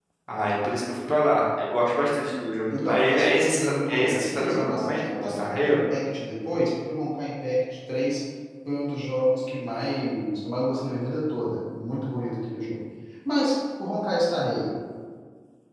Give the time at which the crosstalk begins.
2.7 s

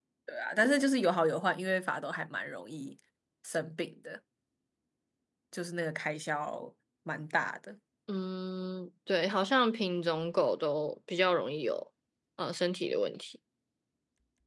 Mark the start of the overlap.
none

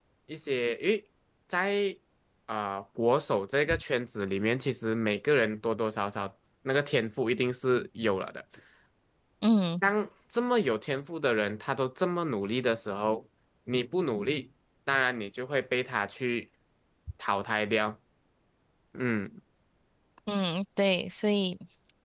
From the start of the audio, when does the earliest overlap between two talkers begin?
none

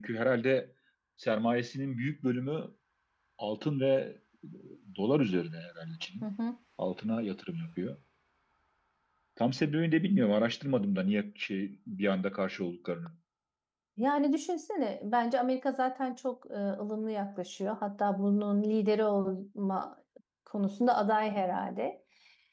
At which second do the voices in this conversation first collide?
none

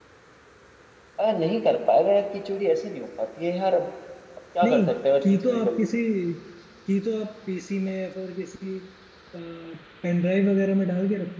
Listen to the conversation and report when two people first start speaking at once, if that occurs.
4.6 s

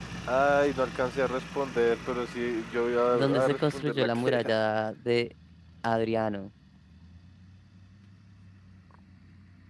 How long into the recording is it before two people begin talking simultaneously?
3.1 s

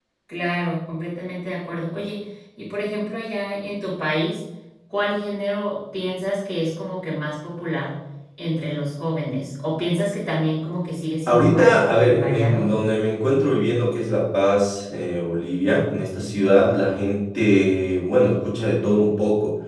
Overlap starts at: 11.3 s

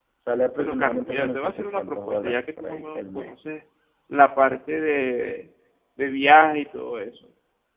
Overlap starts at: 0.6 s

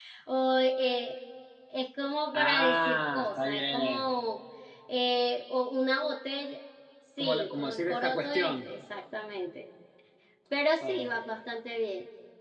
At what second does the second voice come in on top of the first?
2.3 s

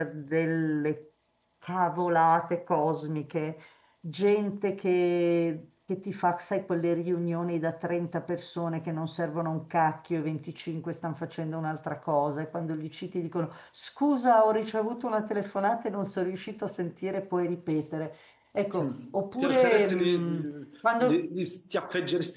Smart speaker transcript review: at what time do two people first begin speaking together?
18.8 s

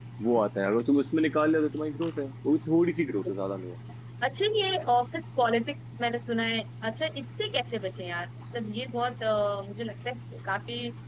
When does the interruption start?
none

